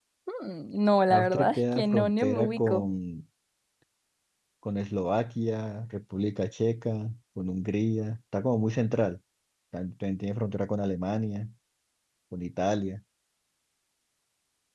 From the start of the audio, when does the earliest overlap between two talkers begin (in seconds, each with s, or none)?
1.2 s